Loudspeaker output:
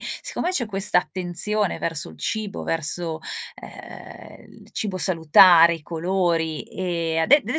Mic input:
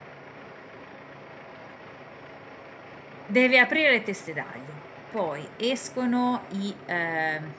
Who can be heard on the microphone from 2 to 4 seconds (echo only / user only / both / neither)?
user only